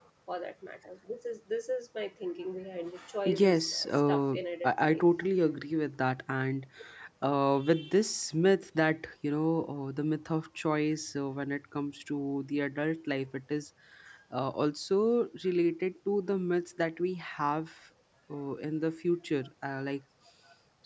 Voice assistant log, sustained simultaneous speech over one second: present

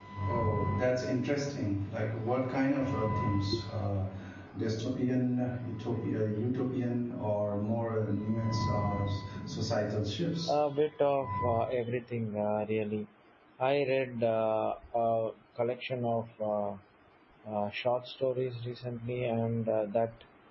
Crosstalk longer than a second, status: none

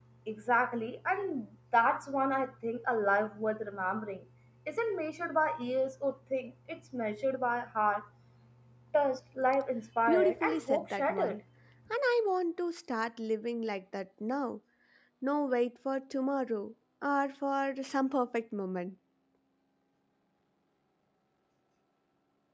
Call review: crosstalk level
present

